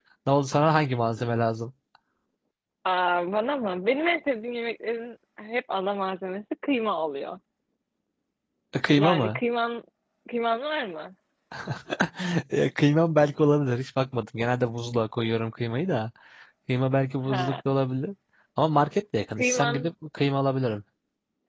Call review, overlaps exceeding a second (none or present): none